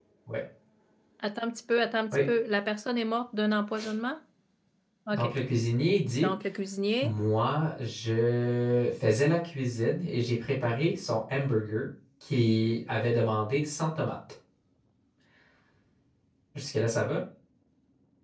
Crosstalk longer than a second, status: none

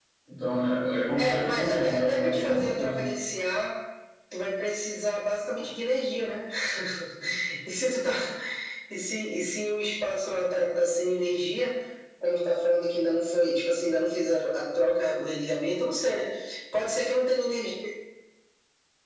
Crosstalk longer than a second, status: present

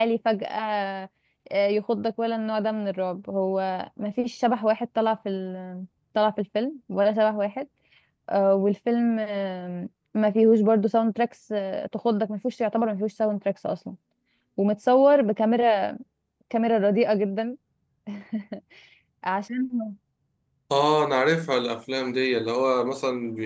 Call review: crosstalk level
none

